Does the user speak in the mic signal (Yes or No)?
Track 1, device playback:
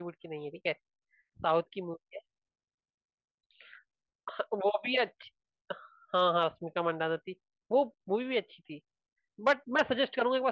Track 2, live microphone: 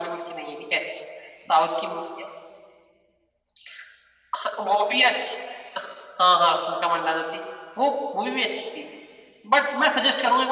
No